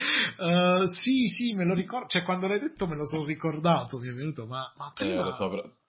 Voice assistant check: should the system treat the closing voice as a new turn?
Yes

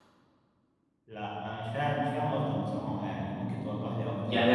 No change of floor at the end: No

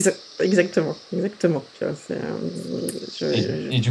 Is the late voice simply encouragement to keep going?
No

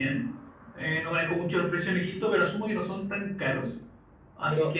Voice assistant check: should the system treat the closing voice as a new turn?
Yes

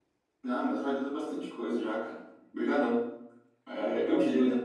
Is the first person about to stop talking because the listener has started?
No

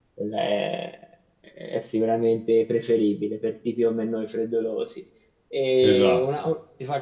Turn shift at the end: No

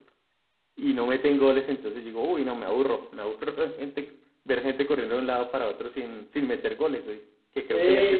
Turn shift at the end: No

